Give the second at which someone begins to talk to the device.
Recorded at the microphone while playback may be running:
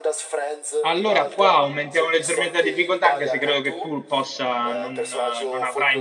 0.8 s

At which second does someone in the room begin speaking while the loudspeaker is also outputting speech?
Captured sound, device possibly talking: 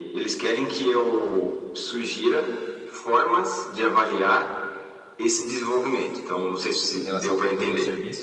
6.9 s

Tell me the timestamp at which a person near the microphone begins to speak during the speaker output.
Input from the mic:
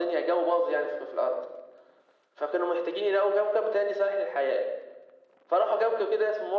none

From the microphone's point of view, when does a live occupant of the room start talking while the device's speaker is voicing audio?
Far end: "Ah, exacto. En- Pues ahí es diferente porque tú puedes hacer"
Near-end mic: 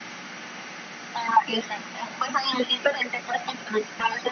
none

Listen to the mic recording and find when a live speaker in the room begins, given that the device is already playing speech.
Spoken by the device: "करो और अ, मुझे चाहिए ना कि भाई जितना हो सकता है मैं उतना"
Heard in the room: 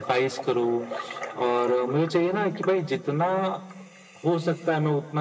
none

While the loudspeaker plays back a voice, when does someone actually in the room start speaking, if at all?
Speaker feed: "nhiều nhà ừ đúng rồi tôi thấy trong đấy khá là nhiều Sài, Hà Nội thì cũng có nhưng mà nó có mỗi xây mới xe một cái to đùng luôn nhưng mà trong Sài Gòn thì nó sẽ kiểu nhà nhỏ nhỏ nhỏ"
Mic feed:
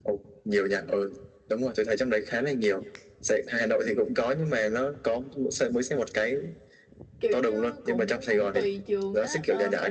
7.2 s

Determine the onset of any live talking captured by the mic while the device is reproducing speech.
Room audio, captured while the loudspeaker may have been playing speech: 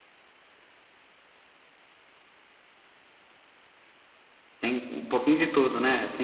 4.6 s

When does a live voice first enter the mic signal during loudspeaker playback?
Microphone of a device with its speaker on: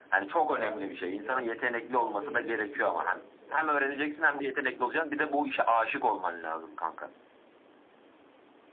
0.4 s

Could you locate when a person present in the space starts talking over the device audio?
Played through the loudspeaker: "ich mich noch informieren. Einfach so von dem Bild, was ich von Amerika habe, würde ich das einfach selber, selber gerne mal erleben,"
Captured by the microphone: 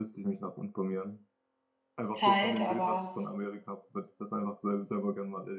2.1 s

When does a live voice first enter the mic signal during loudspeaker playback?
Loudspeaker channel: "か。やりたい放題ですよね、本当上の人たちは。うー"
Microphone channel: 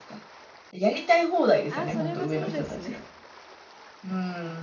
1.7 s

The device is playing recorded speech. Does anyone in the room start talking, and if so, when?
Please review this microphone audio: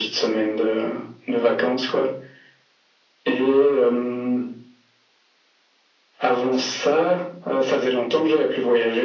none

